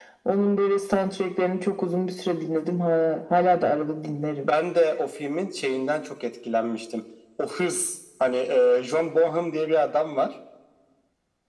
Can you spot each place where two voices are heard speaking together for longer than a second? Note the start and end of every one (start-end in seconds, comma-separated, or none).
none